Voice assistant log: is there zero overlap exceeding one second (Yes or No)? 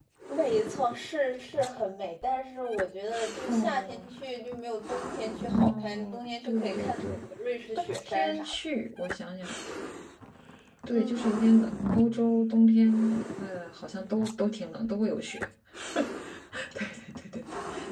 No